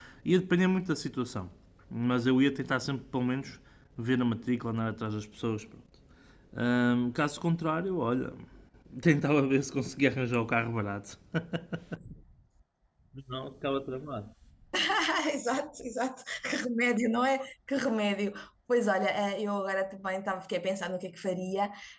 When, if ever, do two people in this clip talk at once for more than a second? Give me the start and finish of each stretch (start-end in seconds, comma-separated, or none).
none